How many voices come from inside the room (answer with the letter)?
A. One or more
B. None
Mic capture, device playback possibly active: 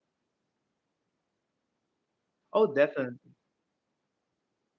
A